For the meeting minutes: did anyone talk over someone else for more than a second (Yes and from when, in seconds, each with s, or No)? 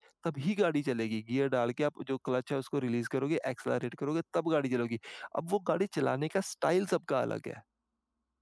No